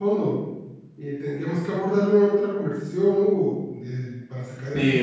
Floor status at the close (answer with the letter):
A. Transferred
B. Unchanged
A